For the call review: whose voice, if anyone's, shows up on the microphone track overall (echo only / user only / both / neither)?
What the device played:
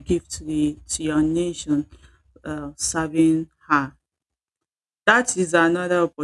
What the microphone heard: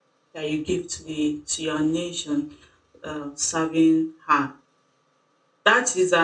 echo only